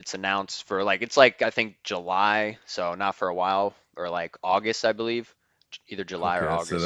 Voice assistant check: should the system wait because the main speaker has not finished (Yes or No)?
No